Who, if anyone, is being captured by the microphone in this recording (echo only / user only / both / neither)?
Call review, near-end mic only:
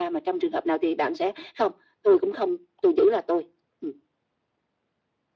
echo only